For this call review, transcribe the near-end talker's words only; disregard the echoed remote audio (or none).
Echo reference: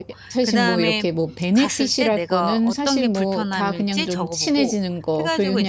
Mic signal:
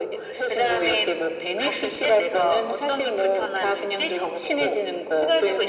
none